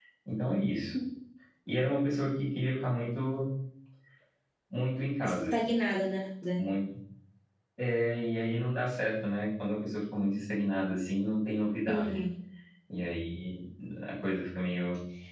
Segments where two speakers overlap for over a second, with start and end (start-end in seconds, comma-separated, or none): none